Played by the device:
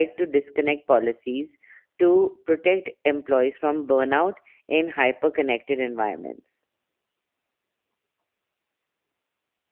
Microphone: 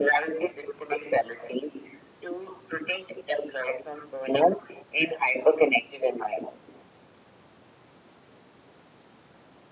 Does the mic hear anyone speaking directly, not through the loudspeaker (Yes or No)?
No